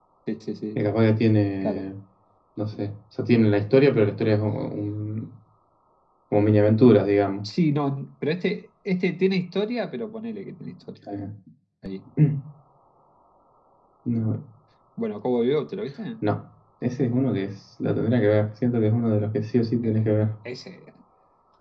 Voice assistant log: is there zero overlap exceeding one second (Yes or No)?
Yes